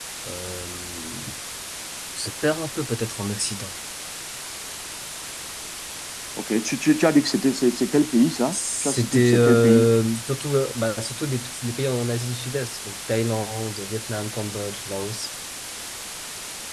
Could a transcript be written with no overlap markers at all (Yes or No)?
No